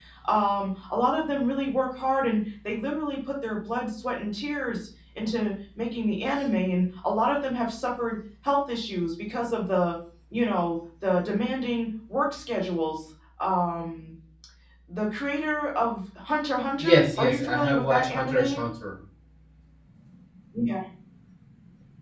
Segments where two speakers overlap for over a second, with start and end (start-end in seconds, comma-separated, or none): 16.8-18.6